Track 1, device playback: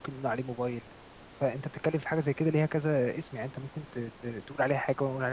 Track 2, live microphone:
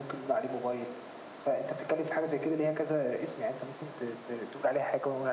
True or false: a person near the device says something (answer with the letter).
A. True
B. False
B